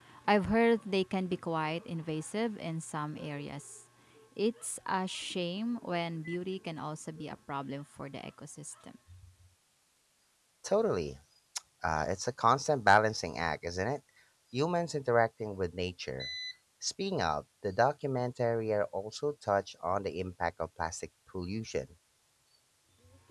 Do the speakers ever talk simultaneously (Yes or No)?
No